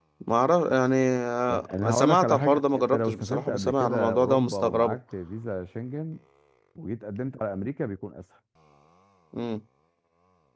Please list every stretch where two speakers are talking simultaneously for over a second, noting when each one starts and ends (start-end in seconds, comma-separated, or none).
1.5-5.0